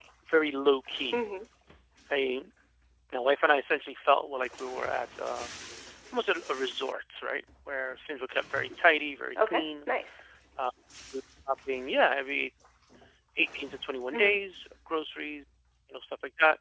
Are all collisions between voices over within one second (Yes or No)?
Yes